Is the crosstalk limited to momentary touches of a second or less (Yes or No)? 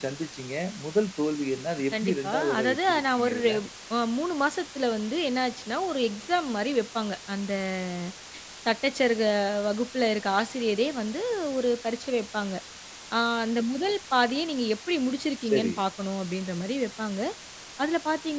No